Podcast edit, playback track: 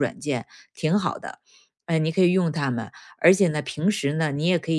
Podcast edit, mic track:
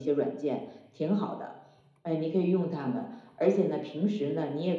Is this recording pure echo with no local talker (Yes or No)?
Yes